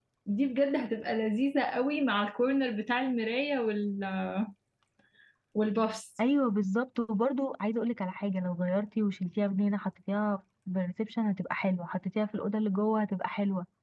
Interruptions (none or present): none